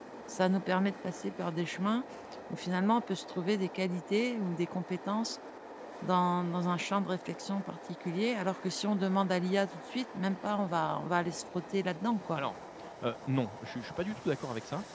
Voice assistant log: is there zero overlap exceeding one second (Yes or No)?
Yes